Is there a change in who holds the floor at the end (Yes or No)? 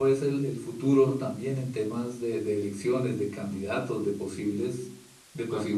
Yes